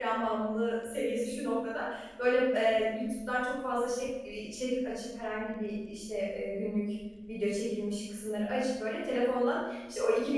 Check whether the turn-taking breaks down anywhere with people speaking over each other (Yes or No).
No